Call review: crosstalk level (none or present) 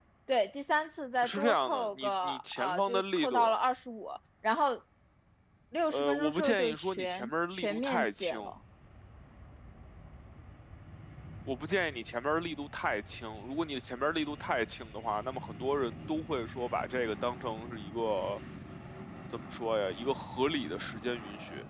present